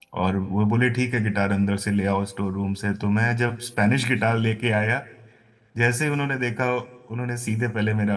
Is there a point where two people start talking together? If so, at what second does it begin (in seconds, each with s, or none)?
none